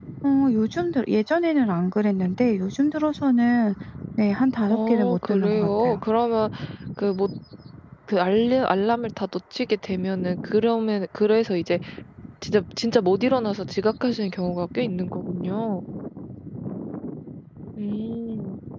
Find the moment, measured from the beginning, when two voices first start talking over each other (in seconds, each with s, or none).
4.7 s